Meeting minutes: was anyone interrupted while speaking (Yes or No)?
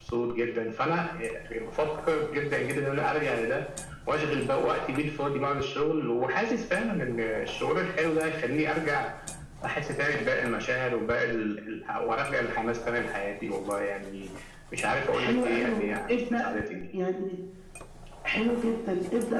Yes